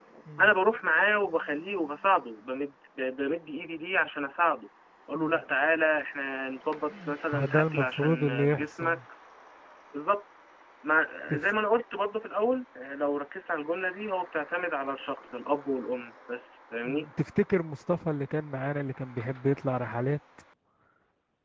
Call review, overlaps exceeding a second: present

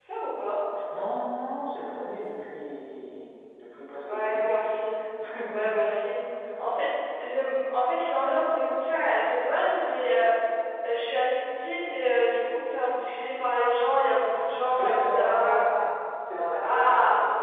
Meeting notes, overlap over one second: present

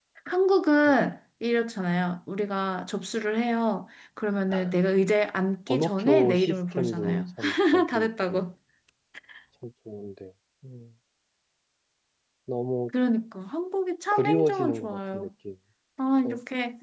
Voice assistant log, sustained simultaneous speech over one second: present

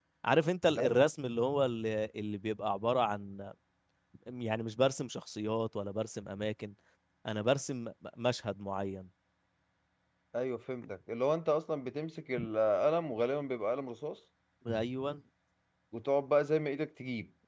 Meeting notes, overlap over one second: none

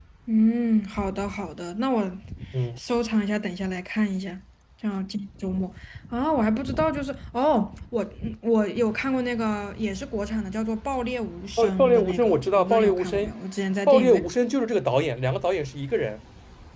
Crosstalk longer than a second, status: present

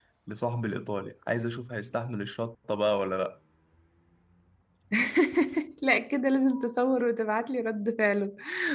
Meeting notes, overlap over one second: none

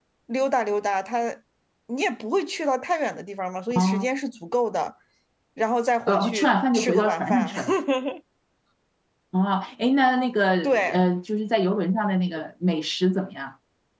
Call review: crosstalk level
present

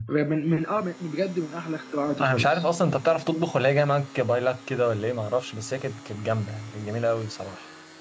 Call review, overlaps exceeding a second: none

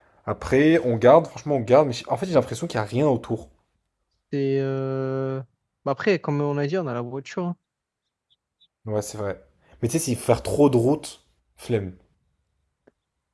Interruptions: none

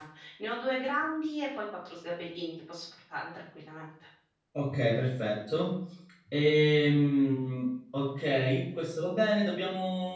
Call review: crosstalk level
none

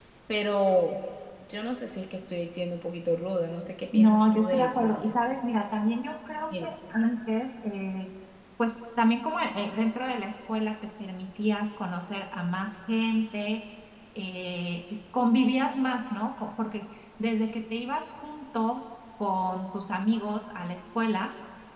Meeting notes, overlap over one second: present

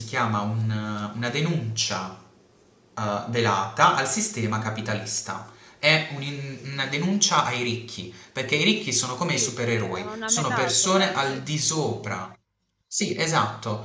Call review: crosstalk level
present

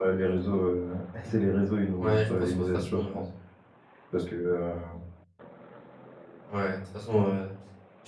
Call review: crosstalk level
present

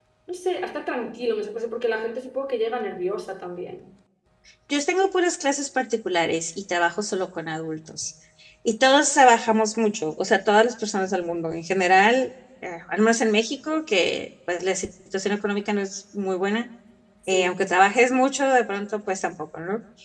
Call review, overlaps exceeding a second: none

